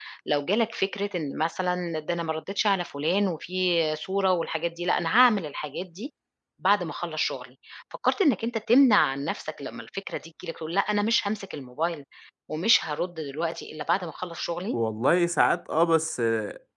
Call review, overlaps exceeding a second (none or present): none